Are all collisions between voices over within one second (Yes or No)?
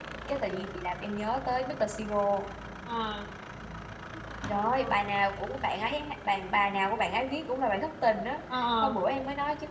Yes